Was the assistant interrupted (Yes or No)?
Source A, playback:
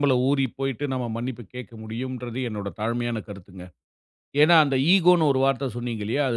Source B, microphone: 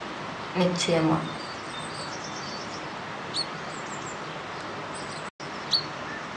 Yes